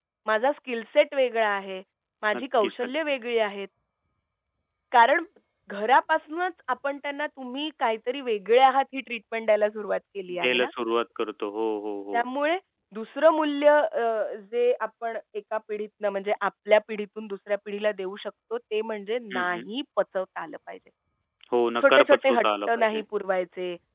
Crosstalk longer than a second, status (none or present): present